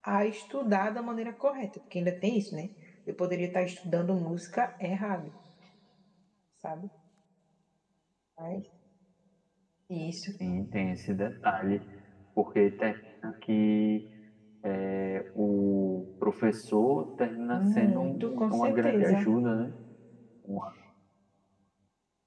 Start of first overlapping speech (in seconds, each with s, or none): 17.5 s